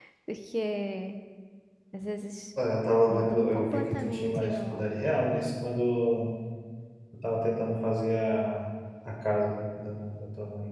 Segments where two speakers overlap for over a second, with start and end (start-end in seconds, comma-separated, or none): 3.1-4.9